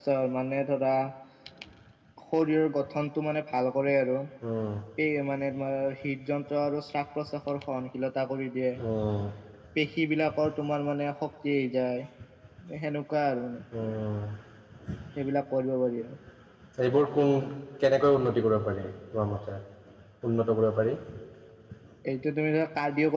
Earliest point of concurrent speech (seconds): none

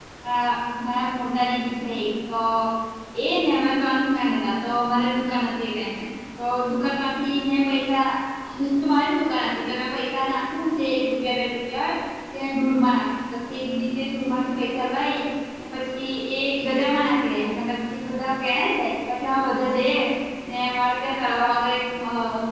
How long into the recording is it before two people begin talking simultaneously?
none

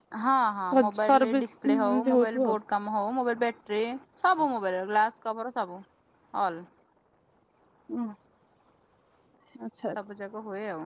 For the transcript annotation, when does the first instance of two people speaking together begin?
1 s

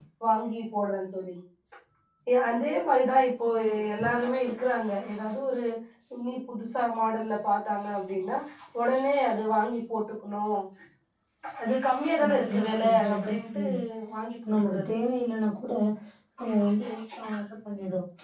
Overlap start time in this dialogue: 12 s

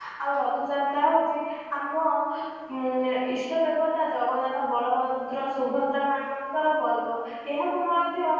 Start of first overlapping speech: none

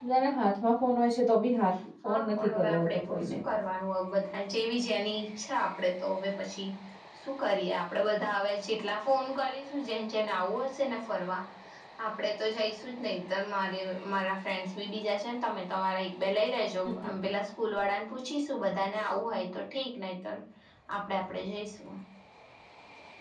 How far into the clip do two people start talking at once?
2 s

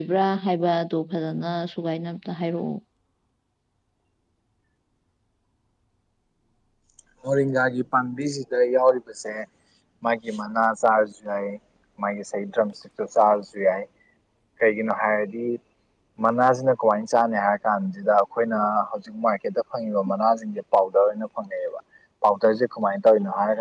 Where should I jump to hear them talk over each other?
none

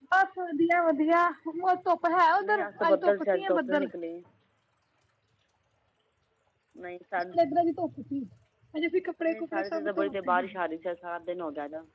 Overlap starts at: 2 s

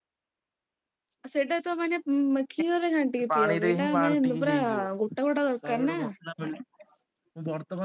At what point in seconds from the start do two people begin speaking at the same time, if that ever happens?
3 s

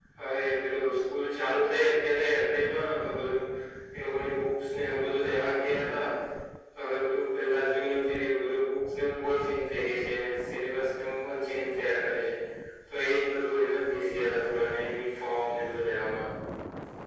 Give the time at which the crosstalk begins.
none

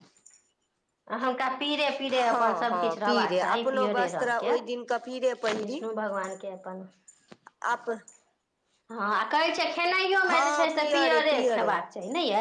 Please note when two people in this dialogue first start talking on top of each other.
2 s

